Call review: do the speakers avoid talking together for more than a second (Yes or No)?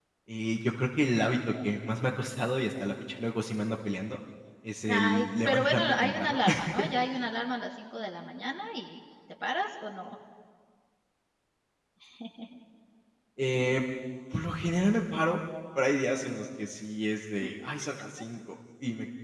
No